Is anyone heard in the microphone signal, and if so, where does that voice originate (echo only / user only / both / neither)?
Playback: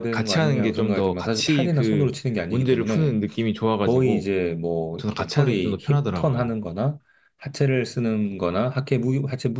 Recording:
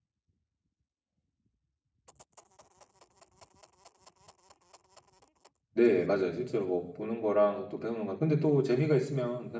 user only